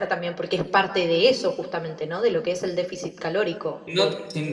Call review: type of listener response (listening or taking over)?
taking over